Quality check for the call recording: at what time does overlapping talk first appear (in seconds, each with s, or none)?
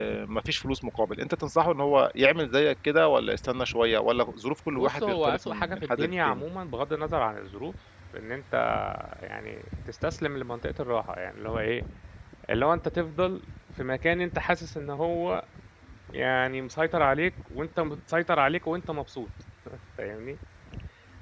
4.7 s